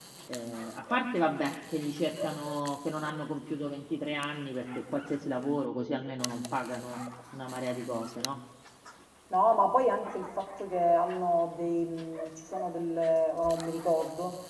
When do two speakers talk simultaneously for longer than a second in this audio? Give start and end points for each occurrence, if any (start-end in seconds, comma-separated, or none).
none